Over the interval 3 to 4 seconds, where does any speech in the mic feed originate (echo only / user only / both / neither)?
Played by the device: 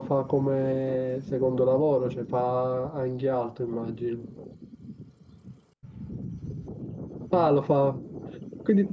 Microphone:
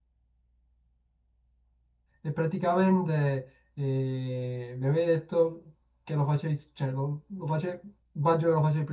user only